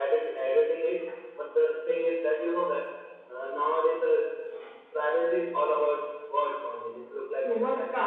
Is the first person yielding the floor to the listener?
Yes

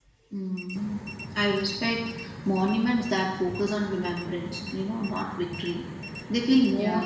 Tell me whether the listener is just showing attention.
Yes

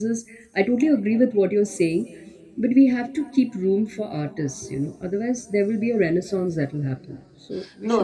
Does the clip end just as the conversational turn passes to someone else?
Yes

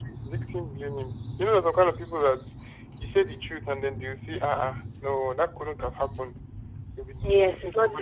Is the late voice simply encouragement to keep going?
No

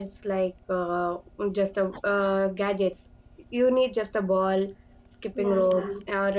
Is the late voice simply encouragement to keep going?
Yes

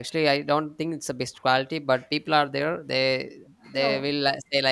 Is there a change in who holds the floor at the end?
No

